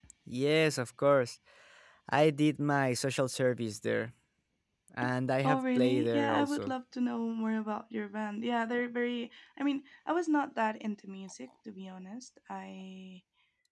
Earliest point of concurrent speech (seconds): 5.4 s

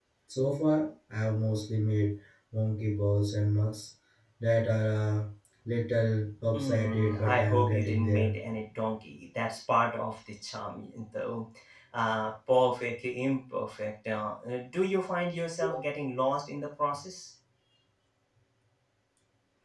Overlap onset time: 6.5 s

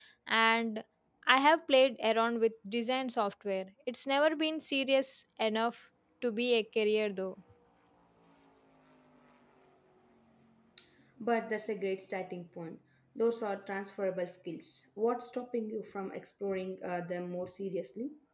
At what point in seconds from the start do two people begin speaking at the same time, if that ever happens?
none

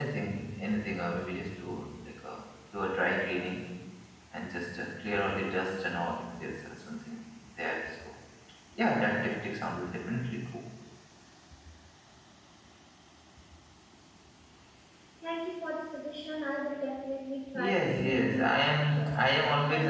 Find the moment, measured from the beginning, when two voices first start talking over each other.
17.5 s

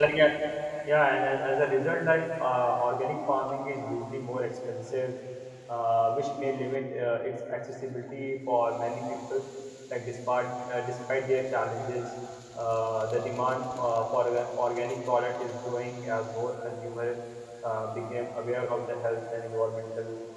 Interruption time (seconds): none

